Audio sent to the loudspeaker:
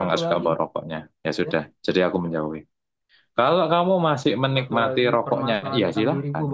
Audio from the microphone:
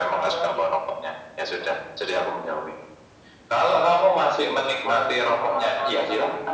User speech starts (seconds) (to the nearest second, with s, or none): none